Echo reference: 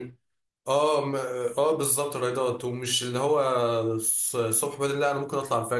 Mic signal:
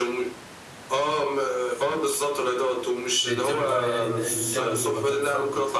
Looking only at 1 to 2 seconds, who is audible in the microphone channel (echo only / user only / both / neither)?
echo only